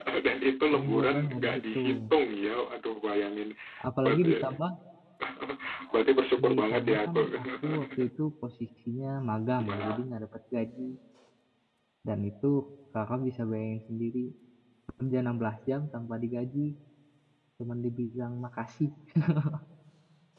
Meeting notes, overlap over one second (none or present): present